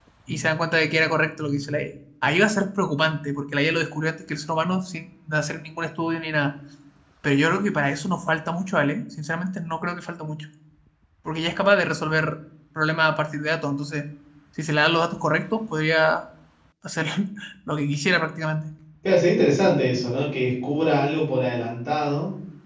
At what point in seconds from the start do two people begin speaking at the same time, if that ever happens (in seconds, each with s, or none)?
none